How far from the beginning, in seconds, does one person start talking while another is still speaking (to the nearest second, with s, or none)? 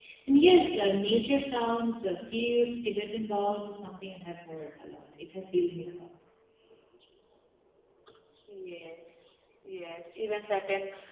none